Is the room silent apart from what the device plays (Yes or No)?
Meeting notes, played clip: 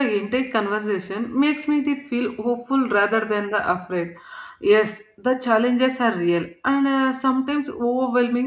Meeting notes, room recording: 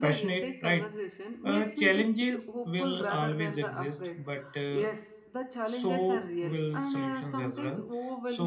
No